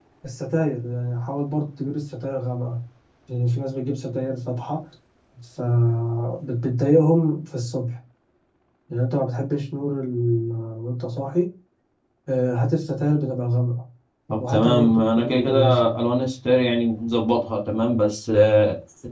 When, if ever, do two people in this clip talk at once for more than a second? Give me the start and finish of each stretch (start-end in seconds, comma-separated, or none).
14.5-15.9